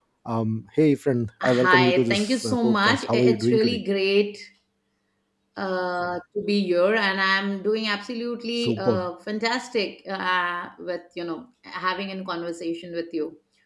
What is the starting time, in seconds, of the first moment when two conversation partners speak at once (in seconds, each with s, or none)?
1.4 s